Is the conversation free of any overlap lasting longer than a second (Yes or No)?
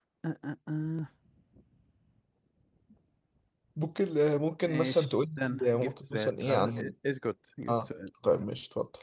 No